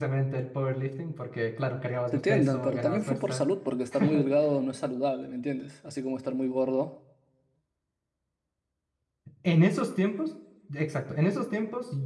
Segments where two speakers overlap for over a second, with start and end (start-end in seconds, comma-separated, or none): 2.1-3.4